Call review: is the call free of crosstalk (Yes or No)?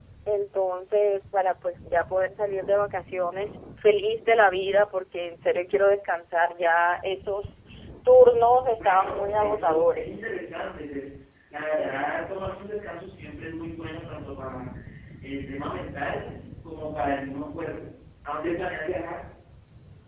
No